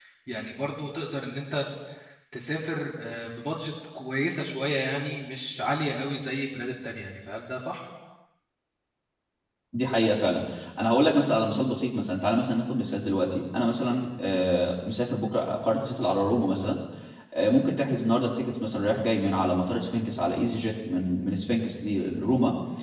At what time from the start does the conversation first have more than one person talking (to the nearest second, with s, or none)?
none